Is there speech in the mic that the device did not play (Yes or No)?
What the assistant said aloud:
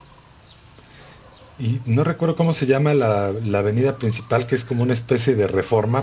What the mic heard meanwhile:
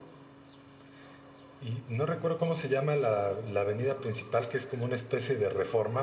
No